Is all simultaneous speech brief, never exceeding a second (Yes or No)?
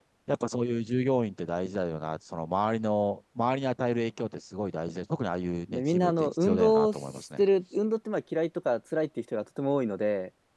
No